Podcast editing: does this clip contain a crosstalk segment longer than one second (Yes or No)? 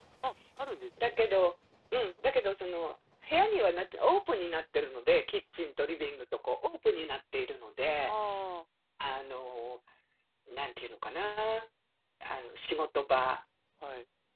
No